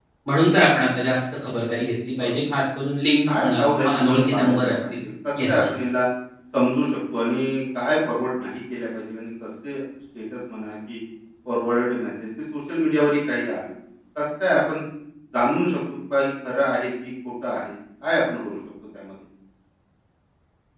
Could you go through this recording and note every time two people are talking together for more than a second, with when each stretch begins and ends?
3.4-5.0

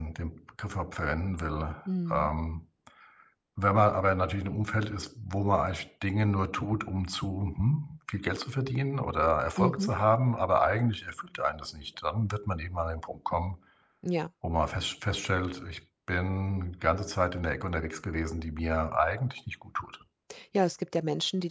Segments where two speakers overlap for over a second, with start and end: none

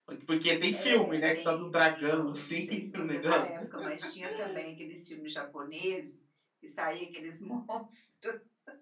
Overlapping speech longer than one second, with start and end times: 0.7-3.5

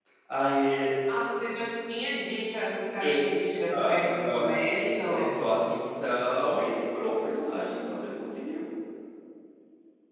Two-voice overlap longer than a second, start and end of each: 3.7-5.3

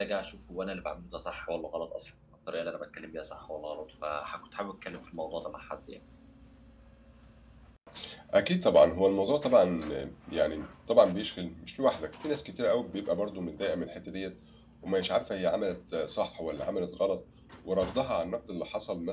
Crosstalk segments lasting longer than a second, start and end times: none

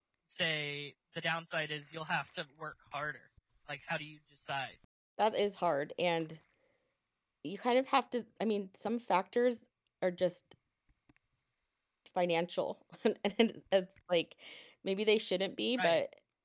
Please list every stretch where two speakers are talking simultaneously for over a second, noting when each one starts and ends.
none

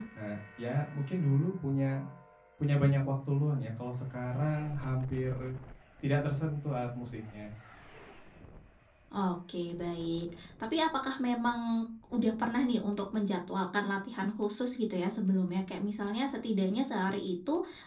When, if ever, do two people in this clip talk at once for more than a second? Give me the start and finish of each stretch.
none

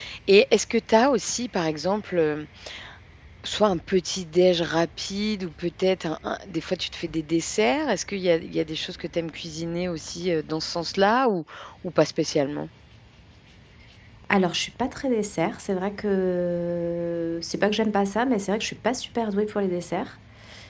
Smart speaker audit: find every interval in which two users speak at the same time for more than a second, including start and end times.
none

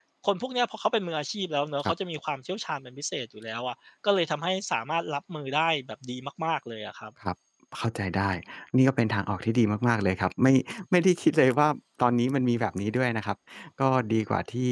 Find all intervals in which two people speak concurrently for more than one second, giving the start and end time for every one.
none

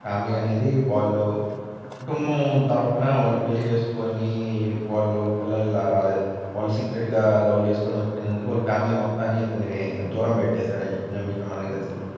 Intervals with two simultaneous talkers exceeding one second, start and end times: none

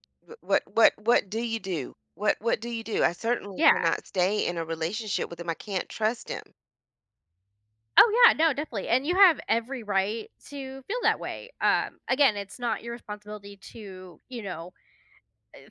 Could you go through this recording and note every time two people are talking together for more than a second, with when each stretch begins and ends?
none

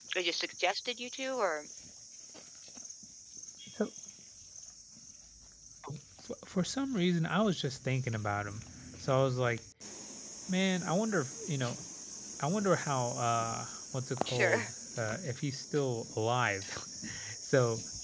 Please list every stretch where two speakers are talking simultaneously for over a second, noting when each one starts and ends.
none

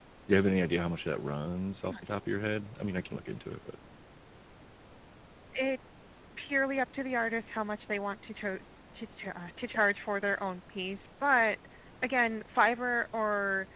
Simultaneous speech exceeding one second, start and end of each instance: none

